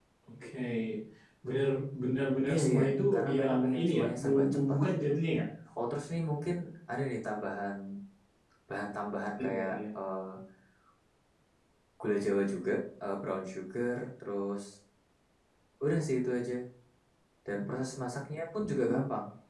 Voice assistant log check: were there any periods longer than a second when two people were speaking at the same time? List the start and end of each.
2.5-5.1

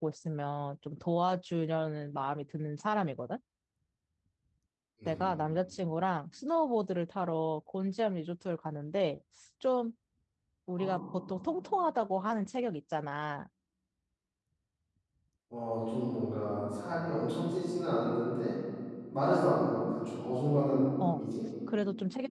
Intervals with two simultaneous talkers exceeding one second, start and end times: none

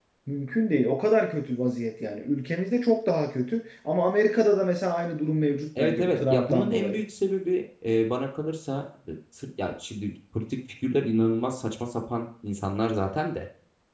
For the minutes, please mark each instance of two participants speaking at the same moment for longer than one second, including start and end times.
5.8-7.0

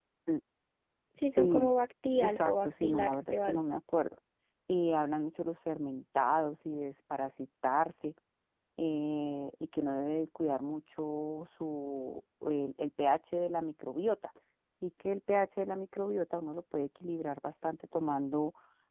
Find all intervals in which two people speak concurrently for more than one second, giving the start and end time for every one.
2.1-3.4

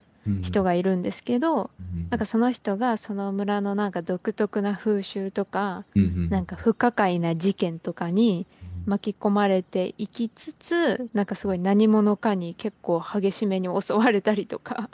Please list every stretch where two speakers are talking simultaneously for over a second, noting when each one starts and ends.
none

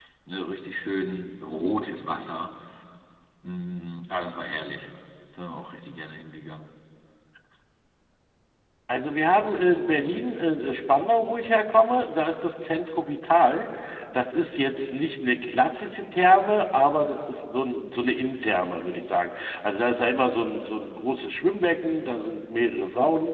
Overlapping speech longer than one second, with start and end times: none

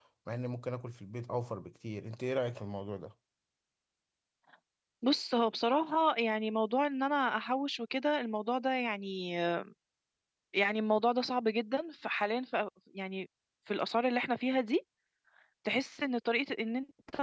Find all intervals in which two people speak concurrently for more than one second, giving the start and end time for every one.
none

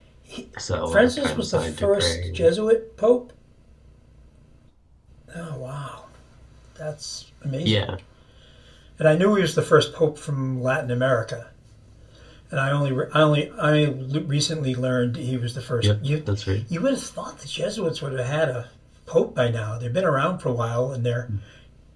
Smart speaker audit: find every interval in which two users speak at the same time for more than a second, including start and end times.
0.9-2.5

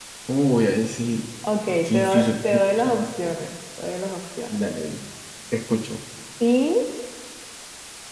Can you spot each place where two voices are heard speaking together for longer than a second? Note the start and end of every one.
1.9-3.4

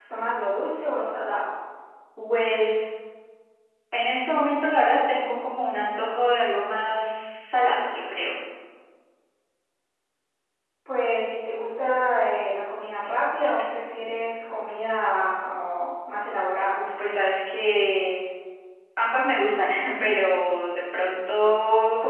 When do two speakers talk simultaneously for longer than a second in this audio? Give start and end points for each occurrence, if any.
none

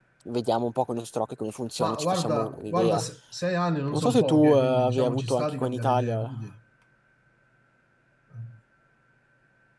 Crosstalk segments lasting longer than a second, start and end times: 1.8-3.0, 3.9-6.3

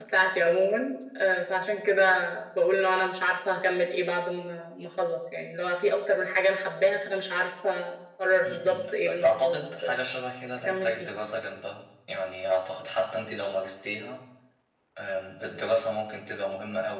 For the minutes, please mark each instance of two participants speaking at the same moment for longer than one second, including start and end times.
8.4-9.8

